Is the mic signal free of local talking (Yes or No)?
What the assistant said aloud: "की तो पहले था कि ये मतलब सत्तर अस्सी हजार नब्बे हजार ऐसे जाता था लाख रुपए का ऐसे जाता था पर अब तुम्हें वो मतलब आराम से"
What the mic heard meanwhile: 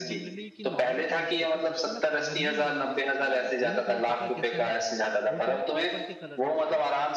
No